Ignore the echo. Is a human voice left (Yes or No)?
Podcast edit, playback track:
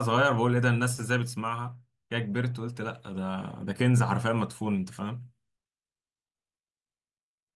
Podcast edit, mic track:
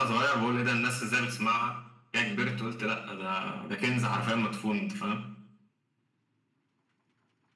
No